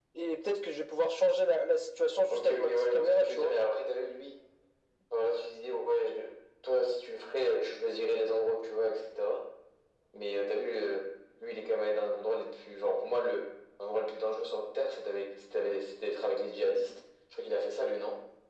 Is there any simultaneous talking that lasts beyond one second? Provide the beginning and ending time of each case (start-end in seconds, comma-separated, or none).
2.3-3.5